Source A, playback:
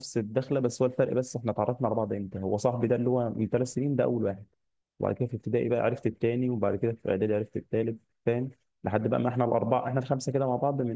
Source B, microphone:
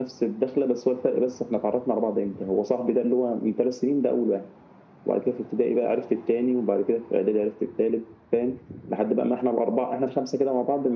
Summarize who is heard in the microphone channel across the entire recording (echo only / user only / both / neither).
echo only